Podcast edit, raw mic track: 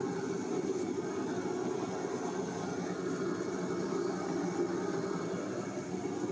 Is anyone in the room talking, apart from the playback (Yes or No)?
No